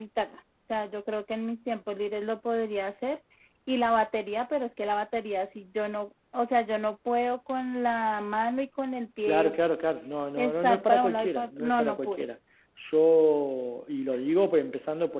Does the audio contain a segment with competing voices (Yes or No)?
Yes